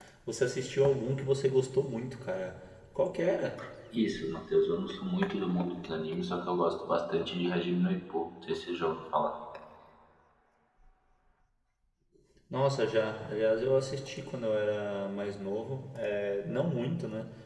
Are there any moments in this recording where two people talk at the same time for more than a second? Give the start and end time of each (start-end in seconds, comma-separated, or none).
none